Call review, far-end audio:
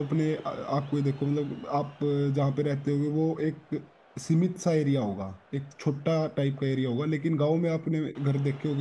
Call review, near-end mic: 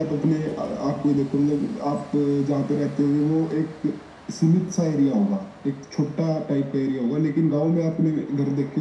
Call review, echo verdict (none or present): present